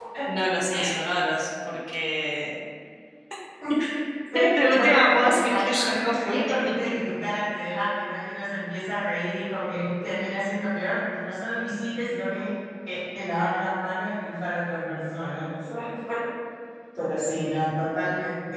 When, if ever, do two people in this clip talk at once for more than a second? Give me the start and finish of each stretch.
4.6-6.4

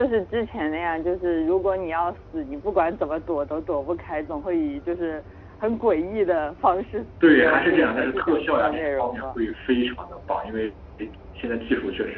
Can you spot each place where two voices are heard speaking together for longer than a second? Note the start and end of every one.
7.2-9.2

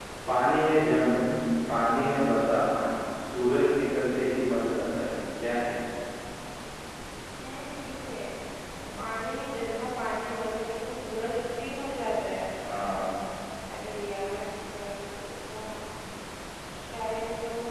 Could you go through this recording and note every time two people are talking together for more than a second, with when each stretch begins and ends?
none

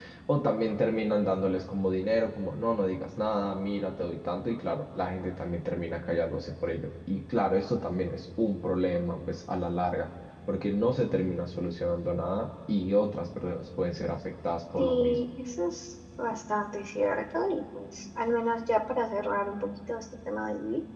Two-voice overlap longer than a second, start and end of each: none

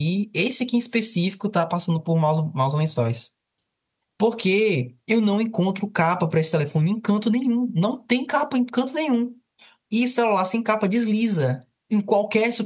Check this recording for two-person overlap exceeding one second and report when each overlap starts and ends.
none

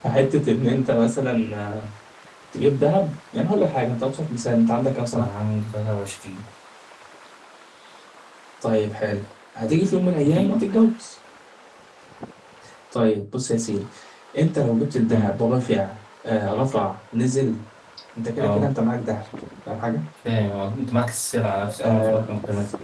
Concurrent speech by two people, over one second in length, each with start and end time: none

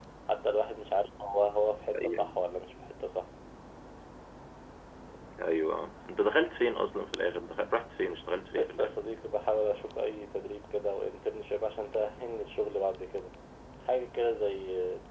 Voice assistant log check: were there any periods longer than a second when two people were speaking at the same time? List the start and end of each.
none

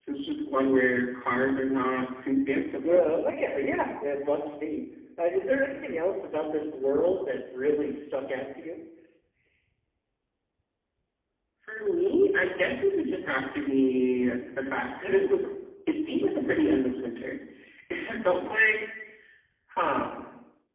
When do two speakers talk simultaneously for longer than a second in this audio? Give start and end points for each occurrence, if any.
none

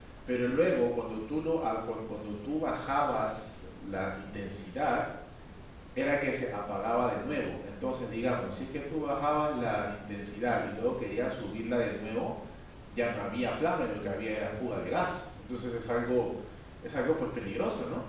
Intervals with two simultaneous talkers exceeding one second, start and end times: none

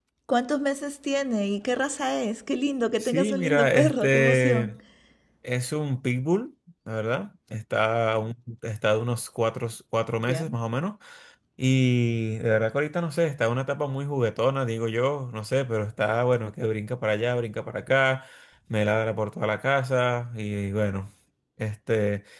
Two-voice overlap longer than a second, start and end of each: 3.0-4.7

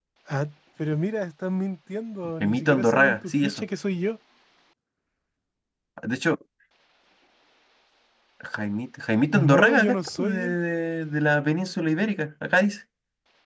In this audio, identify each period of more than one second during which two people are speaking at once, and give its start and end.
2.4-3.6, 9.3-10.6

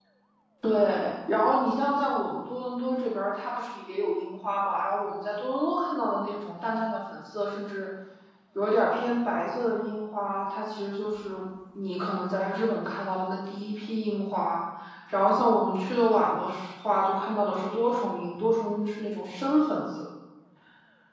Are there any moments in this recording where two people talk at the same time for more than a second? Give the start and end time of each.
none

